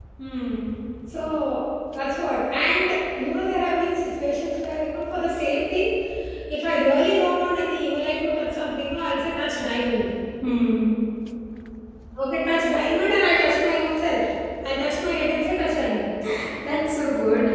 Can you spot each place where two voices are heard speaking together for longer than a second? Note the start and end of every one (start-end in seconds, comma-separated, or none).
none